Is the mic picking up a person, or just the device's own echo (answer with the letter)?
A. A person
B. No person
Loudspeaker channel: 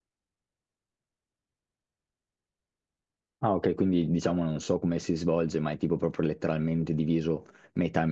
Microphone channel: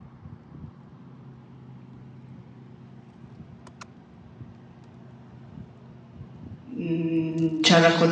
A